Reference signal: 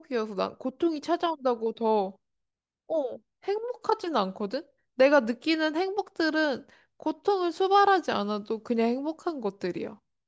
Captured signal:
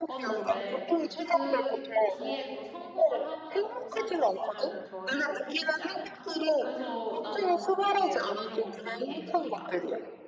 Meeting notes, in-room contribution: present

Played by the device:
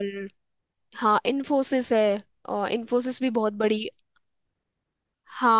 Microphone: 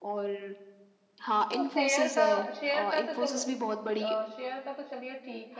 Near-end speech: present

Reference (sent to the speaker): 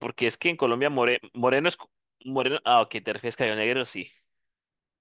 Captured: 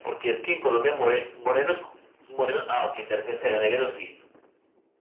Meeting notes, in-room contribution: none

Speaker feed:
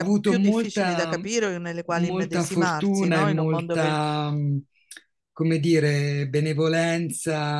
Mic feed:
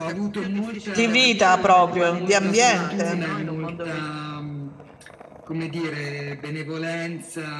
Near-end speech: present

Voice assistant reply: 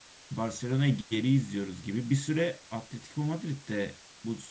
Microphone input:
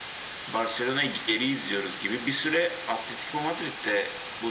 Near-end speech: none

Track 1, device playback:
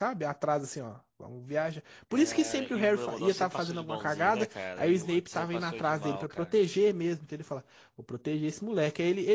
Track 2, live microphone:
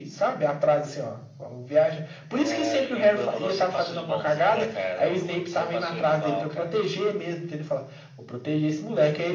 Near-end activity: none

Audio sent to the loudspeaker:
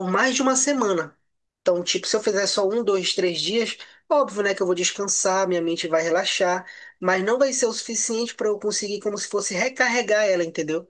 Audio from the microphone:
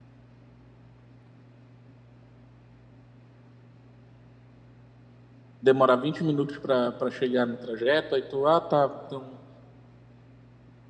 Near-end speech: present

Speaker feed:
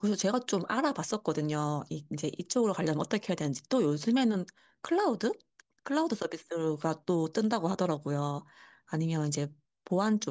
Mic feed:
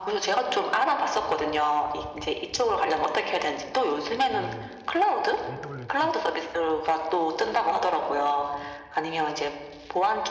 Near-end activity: present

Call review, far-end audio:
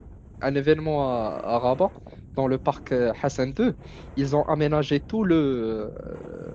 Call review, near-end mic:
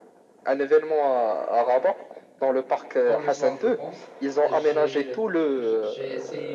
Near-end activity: present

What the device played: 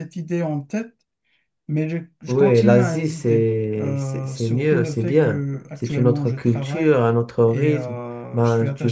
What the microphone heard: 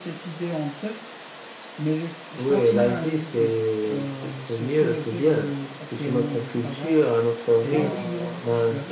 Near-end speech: present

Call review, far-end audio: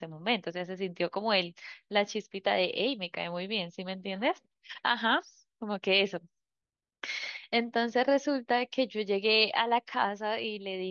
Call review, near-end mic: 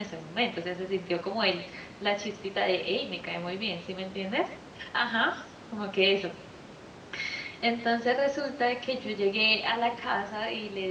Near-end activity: none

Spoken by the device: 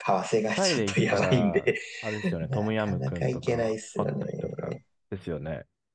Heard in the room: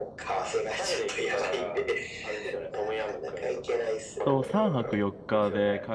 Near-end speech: present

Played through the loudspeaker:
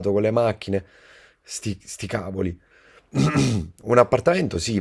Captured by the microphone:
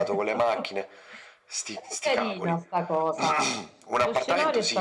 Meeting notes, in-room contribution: present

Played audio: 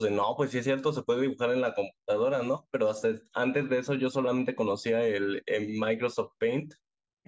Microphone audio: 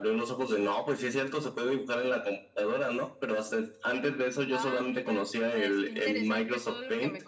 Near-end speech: present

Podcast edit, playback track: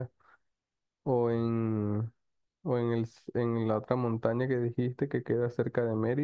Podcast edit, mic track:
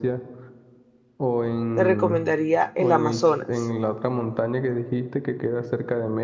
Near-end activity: present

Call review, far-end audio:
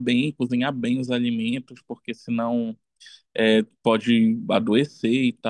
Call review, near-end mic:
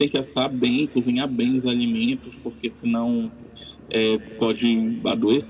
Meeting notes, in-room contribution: none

